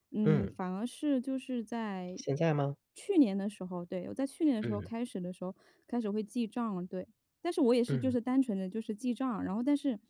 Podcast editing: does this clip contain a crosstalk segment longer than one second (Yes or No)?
No